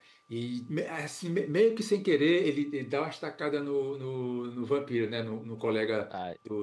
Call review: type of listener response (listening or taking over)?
listening